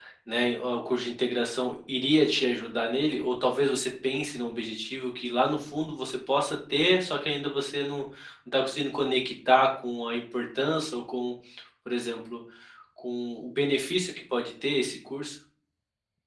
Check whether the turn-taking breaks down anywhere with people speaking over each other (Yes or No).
No